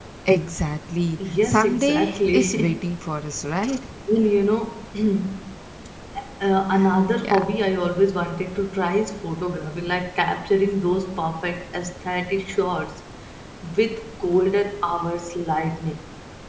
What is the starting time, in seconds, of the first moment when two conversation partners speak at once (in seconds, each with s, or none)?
1.4 s